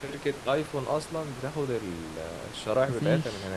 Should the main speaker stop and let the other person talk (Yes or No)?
Yes